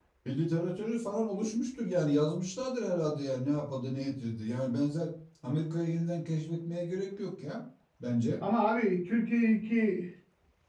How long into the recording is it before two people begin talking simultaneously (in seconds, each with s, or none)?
none